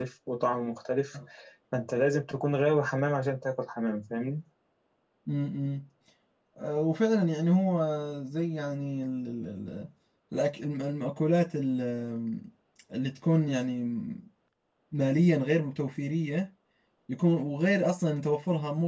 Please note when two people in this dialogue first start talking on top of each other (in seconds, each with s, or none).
none